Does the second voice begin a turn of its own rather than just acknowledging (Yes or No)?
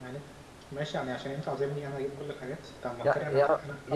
Yes